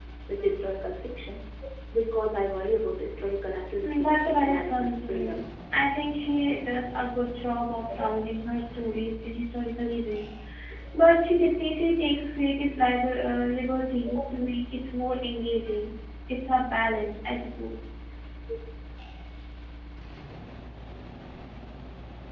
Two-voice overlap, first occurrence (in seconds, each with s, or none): 3.8 s